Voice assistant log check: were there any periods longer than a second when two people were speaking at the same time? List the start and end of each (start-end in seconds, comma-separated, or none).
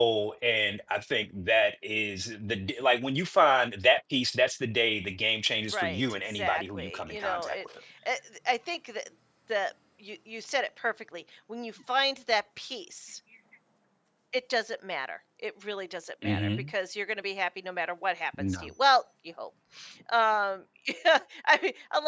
5.7-7.6